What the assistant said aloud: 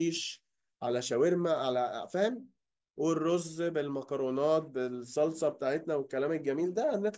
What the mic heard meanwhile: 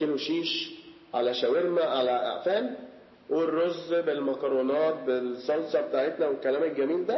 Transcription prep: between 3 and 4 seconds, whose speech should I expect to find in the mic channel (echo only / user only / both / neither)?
echo only